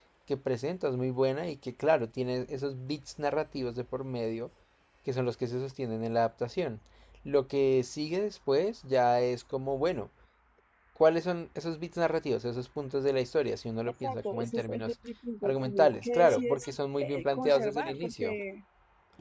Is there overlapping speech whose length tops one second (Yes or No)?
Yes